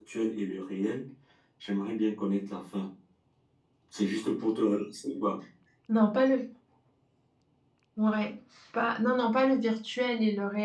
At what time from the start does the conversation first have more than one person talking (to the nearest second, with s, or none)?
none